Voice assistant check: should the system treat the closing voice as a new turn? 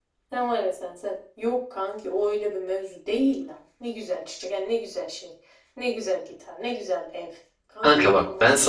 Yes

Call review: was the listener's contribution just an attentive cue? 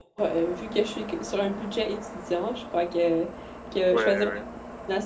Yes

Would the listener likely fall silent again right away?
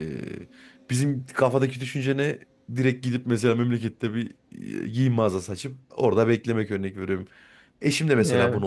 Yes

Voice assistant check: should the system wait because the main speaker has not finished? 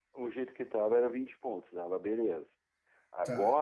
Yes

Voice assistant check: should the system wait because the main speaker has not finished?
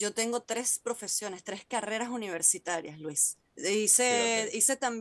Yes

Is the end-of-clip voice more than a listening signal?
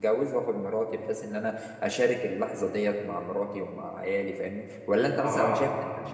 No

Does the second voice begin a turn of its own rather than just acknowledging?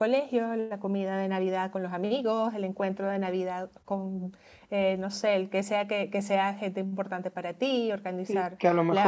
Yes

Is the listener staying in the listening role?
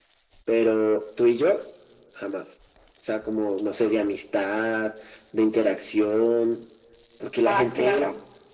Yes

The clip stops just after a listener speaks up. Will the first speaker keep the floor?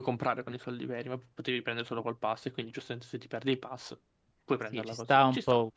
No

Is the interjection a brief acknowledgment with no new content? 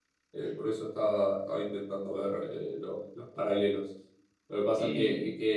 Yes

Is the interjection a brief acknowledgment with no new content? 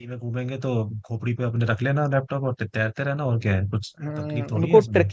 No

